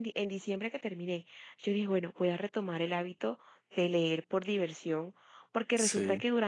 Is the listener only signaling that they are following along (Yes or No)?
Yes